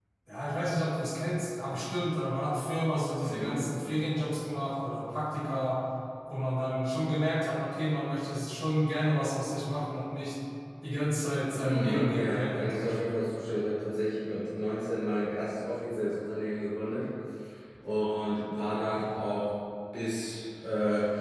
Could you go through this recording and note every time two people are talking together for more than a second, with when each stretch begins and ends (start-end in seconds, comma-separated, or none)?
11.5-13.1